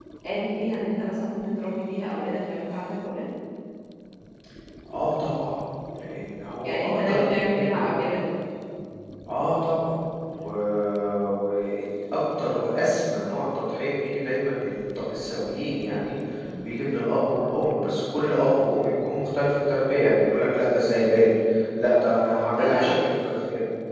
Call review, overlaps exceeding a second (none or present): present